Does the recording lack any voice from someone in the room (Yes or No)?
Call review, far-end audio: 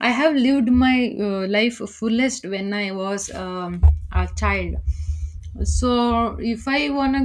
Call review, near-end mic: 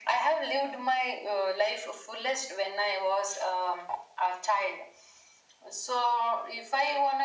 Yes